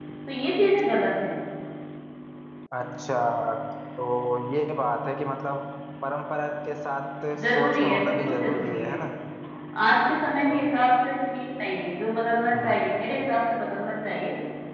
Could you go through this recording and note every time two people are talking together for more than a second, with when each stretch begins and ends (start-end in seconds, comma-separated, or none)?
7.6-9.0